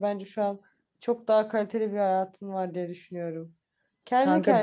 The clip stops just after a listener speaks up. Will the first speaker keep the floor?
Yes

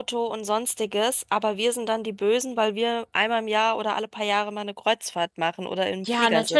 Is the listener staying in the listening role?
No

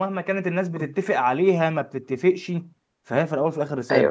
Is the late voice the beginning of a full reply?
Yes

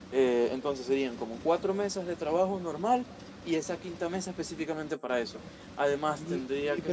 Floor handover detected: Yes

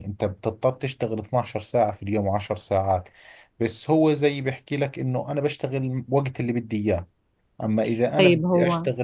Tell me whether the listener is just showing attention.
Yes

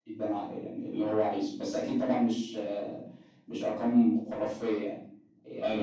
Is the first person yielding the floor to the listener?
No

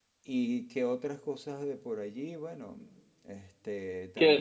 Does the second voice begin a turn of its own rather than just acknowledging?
Yes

